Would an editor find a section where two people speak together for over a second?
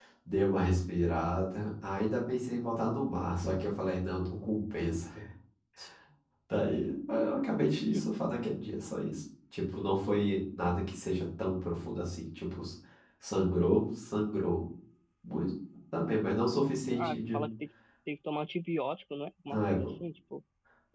No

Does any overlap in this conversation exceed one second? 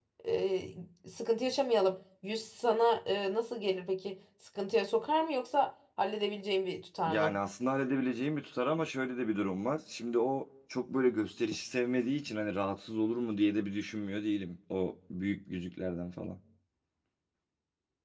No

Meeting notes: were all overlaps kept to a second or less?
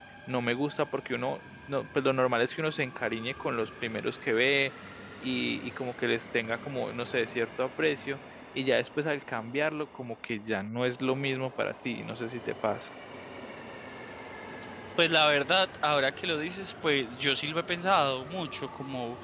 Yes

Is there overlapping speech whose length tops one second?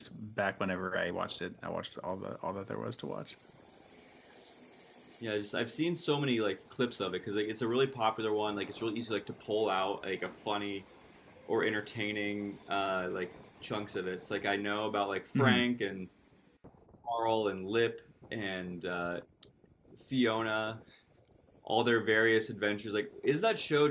No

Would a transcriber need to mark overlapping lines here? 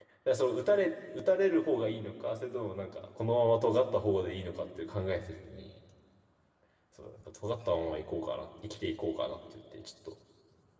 No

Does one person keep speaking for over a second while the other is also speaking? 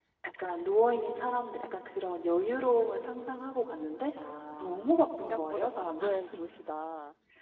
Yes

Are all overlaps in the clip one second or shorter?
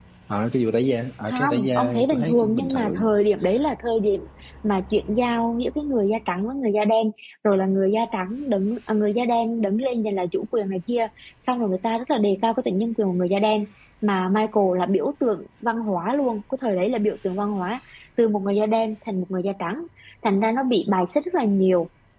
No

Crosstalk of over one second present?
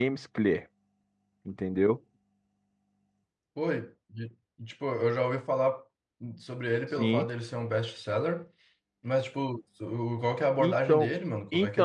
No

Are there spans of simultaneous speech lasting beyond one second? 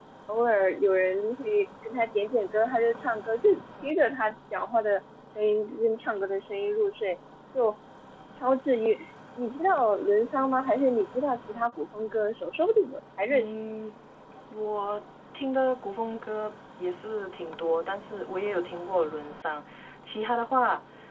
No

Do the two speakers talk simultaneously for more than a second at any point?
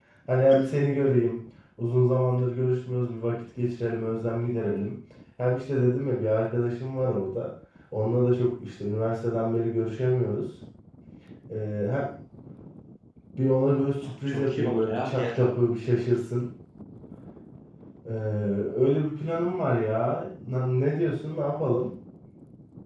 Yes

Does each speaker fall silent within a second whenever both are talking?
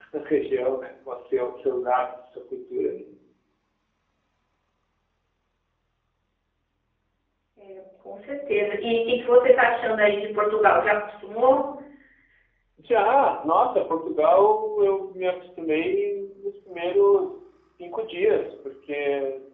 Yes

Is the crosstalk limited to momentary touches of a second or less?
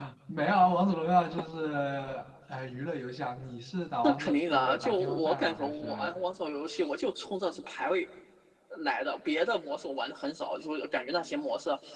No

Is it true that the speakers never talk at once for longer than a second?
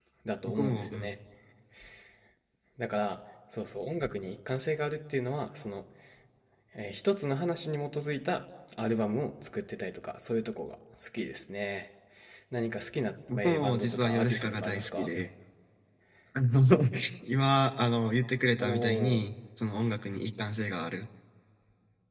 No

